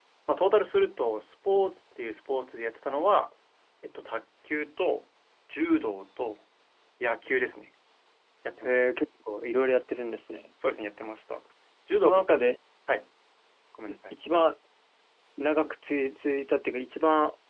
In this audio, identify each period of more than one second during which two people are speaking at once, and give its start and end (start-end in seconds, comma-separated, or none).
none